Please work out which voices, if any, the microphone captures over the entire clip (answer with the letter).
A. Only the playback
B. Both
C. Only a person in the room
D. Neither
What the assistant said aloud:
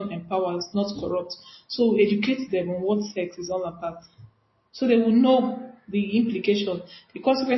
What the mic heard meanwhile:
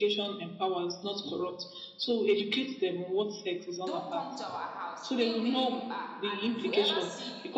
B